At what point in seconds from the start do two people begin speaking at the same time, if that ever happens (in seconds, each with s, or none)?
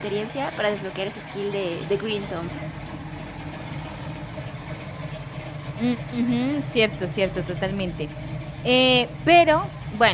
none